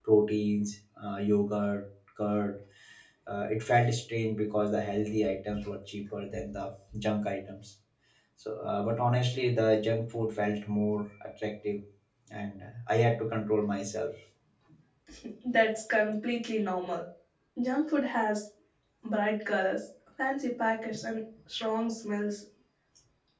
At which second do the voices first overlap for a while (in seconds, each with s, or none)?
none